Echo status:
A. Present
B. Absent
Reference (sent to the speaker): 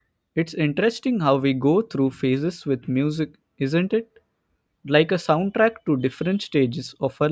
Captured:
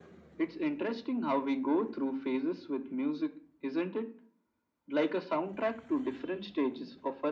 A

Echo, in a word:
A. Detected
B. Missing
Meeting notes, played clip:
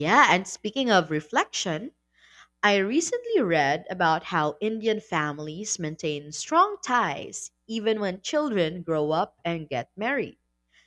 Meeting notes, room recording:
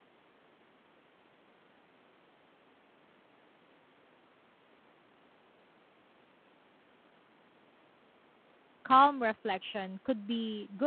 B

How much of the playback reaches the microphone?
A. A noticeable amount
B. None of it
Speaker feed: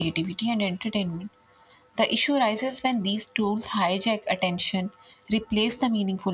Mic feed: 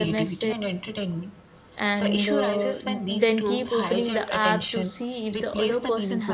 A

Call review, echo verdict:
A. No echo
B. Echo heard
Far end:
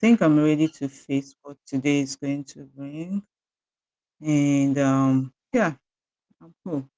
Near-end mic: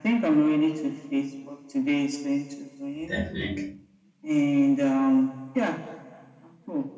B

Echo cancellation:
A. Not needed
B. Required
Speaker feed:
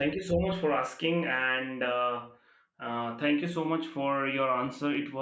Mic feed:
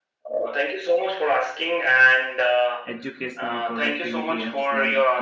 B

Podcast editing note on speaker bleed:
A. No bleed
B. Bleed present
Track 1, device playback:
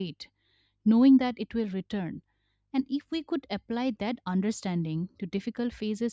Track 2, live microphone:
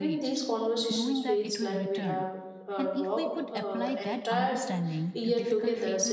B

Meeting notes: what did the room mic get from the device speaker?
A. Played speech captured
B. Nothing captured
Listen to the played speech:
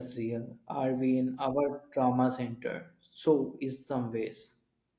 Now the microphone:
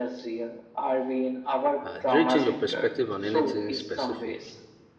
A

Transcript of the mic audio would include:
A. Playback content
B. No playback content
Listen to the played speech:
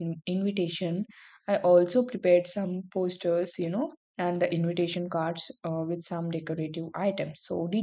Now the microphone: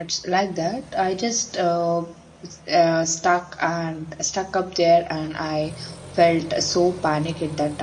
B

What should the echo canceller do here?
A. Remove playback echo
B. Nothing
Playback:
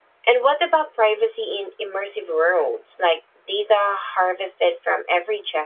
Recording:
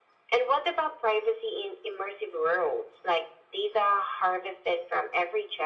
A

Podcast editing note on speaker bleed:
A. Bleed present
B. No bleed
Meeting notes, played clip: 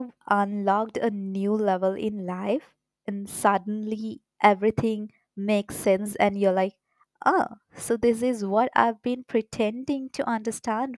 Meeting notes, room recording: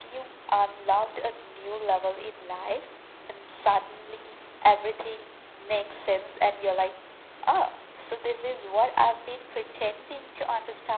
A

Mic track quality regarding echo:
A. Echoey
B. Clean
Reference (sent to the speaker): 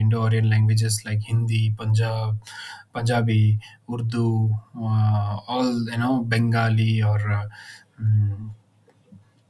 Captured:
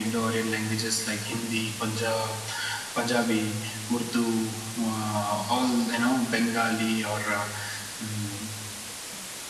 A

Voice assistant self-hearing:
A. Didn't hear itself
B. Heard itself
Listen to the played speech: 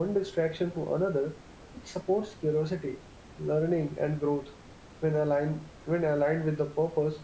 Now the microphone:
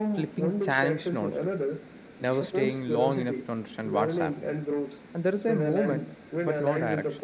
B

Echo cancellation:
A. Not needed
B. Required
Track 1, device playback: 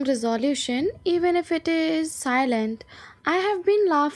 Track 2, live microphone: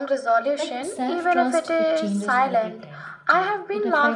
B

